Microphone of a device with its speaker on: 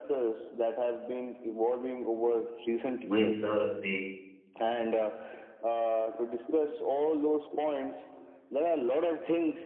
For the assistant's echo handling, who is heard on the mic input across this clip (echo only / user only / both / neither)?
both